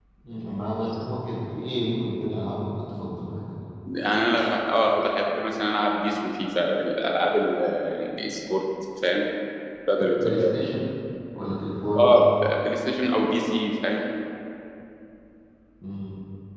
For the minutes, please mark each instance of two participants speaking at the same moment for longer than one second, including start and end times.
none

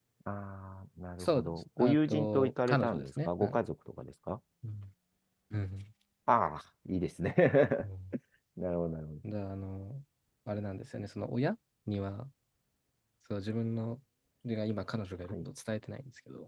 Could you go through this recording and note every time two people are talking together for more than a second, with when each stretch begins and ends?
1.2-3.6

